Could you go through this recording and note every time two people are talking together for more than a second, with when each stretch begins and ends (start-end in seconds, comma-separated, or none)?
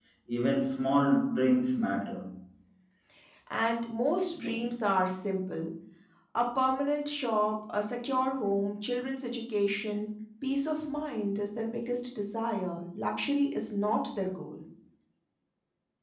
none